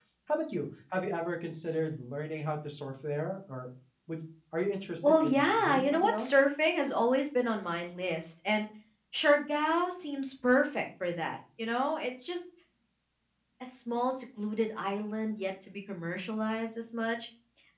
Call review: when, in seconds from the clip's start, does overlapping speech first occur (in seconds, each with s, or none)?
5.0 s